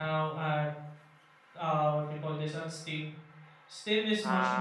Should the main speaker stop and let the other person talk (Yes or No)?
No